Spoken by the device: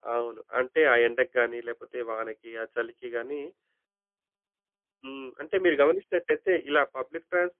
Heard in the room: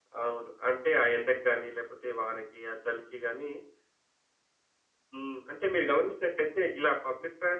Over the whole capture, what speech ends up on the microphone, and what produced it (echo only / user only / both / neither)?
echo only